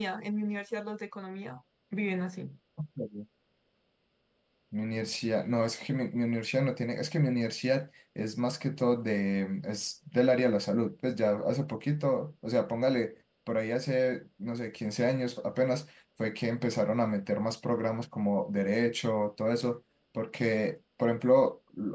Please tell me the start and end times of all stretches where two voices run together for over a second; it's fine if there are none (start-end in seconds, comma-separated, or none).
none